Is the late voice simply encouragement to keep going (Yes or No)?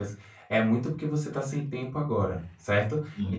Yes